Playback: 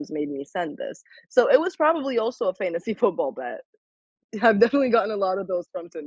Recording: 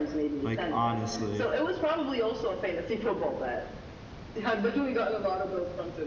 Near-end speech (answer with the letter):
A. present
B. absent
A